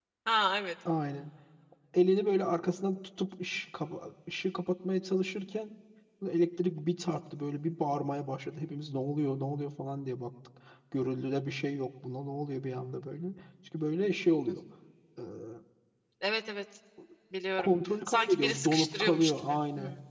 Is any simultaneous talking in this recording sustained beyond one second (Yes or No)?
Yes